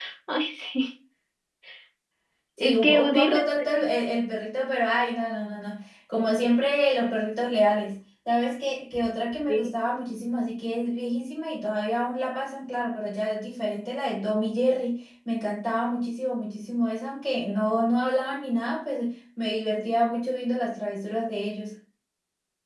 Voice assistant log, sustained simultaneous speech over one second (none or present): present